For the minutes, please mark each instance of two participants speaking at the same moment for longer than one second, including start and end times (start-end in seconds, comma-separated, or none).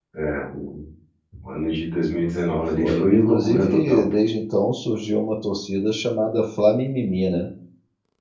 2.8-4.0